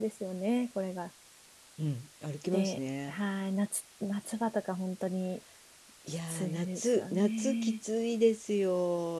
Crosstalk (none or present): present